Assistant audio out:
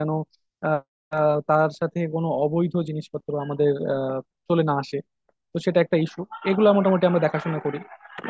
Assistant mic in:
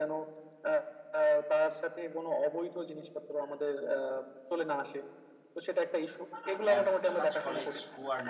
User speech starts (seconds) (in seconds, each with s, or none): 6.7 s